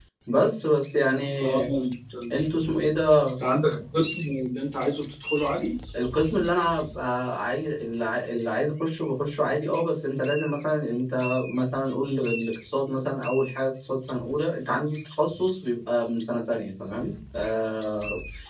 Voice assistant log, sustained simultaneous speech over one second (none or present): none